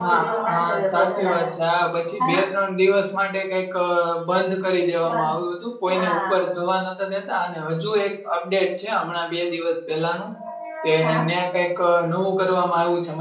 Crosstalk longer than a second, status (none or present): present